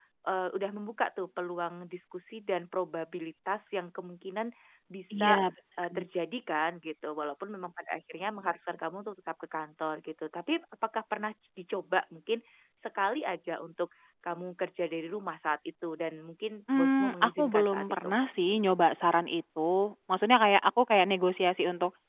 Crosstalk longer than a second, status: present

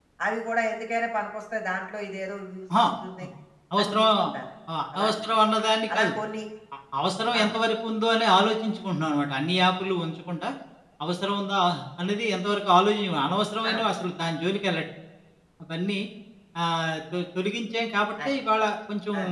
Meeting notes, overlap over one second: none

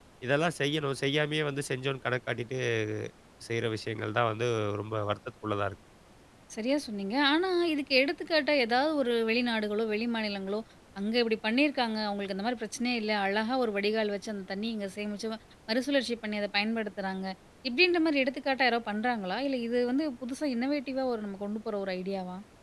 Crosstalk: none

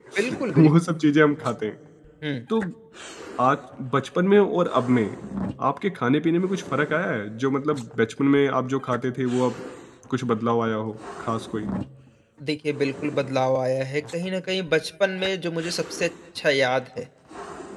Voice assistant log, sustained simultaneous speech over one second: none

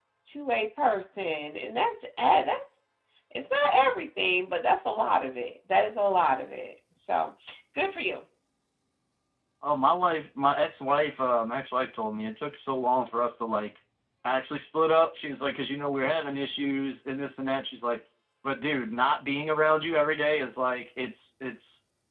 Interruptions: none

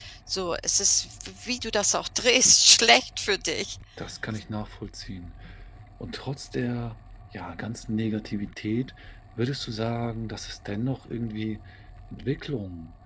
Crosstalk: none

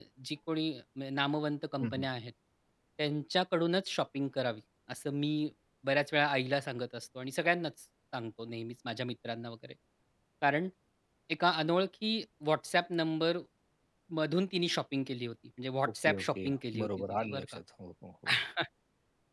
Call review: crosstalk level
present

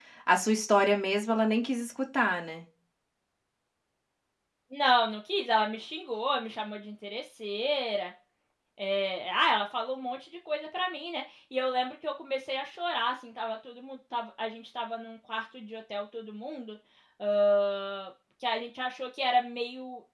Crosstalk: none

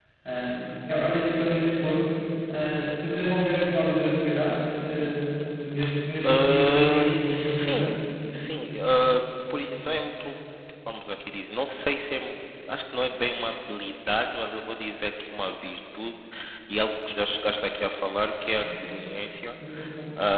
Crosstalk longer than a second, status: present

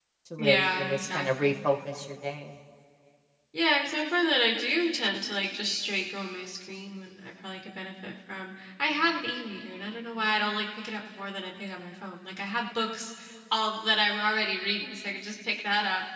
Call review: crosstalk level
present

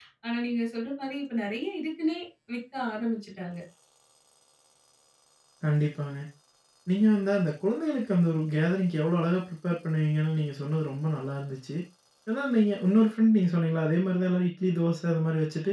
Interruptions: none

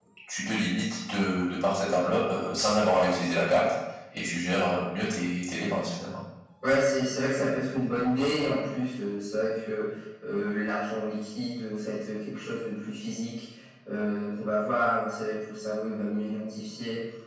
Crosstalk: none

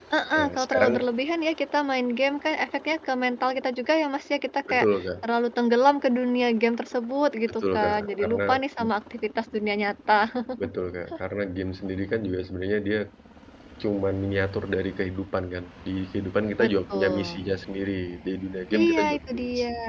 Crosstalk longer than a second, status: present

